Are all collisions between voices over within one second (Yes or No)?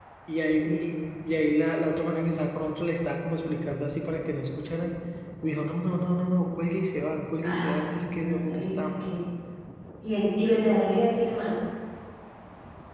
No